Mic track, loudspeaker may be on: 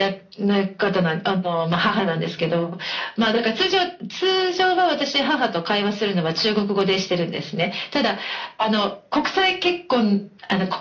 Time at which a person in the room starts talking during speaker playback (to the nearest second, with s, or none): none